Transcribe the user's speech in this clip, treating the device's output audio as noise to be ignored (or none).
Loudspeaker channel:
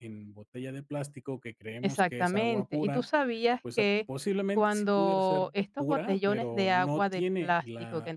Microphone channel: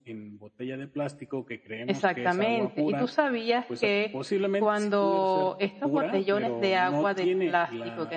none